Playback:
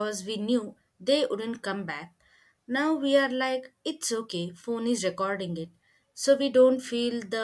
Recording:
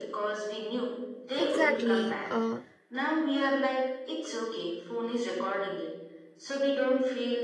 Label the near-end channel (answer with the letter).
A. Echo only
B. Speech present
B